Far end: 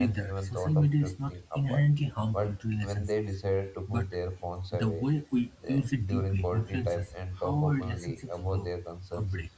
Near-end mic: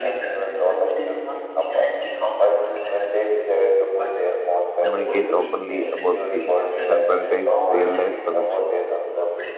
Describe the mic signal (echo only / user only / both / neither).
both